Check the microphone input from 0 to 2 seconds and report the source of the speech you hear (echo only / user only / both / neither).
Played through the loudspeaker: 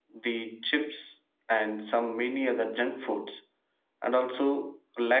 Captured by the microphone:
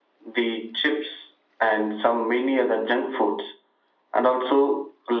echo only